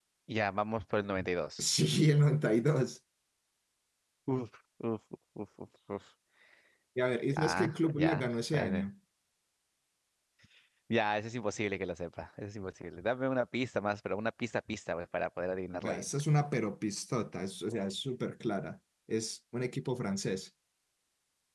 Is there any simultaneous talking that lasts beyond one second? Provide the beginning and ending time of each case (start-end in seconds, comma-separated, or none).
7.4-8.9